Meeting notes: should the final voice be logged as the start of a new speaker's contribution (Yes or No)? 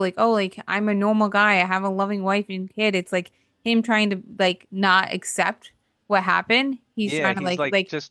Yes